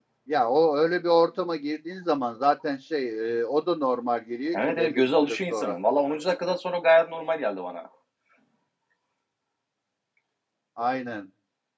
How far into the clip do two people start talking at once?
4.5 s

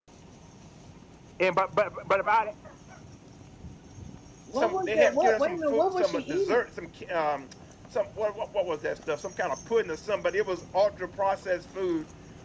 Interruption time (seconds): 4.6 s

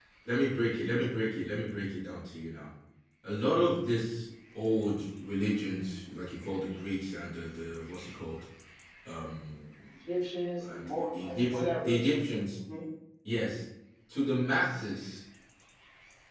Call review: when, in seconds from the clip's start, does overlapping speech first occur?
10.6 s

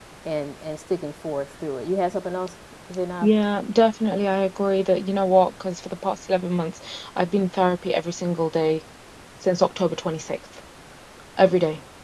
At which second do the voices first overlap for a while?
none

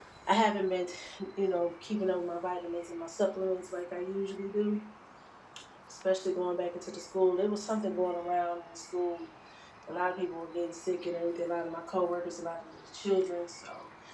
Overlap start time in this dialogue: none

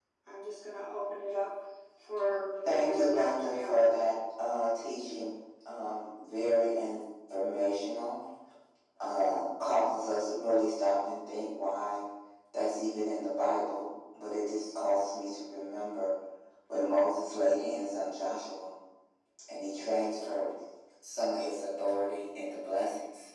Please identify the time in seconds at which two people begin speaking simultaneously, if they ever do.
2.6 s

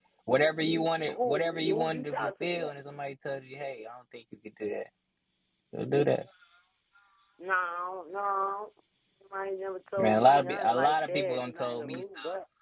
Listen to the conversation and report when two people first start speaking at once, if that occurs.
1.1 s

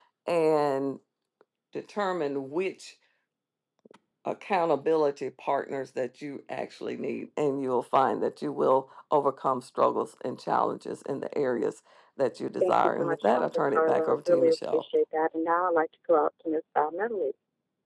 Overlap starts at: 12.6 s

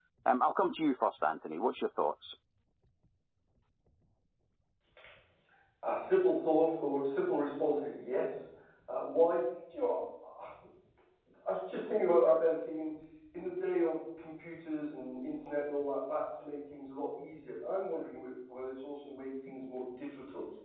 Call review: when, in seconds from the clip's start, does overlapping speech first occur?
none

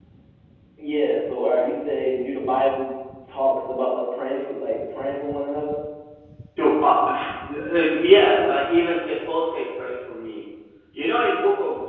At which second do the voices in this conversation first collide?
none

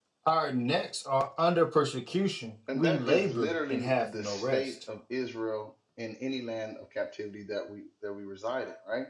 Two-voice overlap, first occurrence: 2.7 s

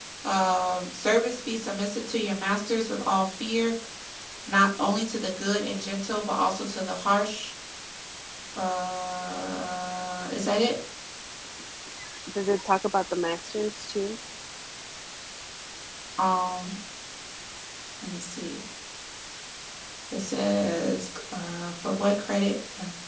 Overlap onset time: none

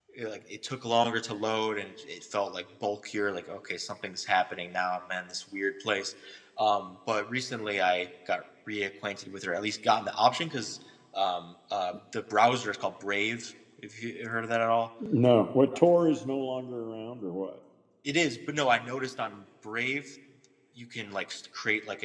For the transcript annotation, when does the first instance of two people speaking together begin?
none

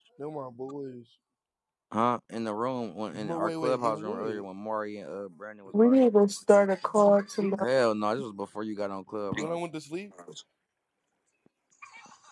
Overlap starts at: 3.1 s

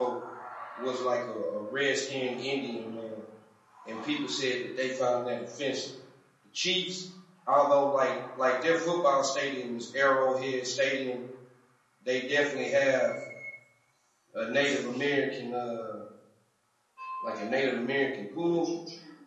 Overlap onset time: none

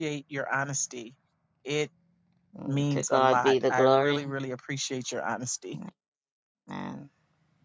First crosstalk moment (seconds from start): 2.7 s

